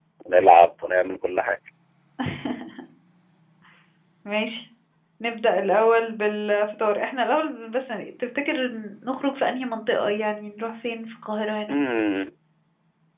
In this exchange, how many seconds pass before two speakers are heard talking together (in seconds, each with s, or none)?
none